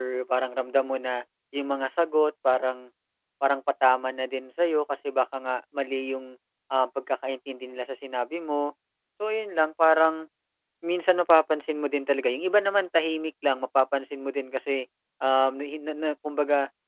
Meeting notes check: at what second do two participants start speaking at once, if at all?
none

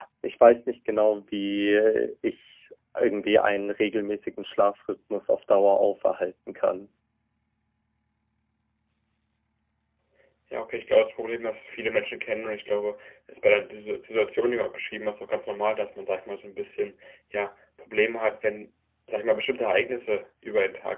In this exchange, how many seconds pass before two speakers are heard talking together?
none

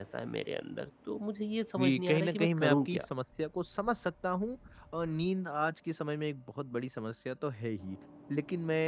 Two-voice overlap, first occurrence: 2 s

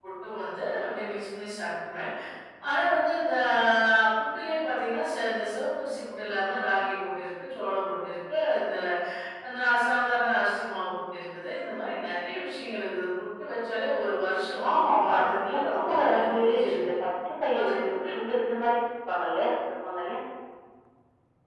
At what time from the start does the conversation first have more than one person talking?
15 s

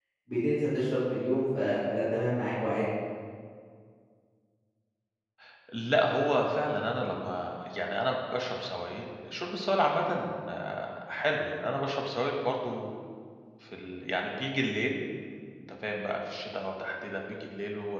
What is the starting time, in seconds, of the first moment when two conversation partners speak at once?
none

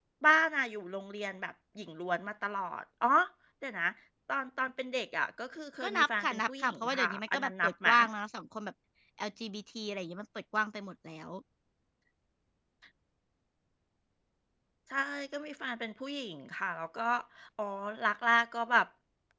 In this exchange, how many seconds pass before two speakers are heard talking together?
6 s

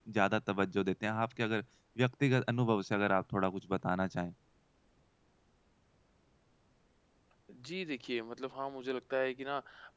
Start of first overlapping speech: none

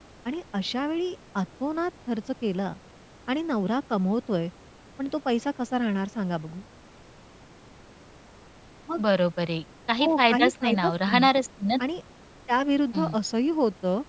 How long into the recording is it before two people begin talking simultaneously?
10 s

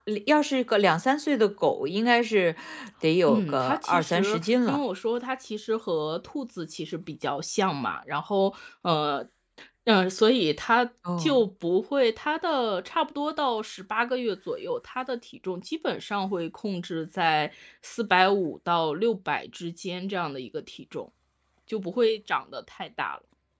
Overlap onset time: 3 s

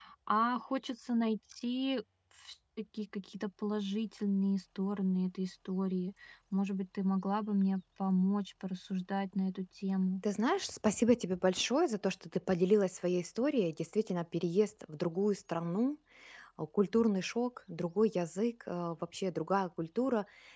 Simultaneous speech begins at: none

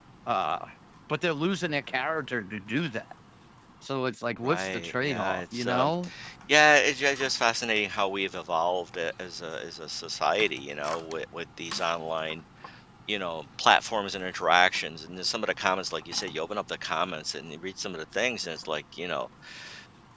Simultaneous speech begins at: 4 s

